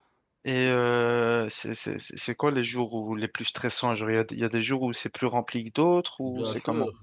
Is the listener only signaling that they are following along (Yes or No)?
No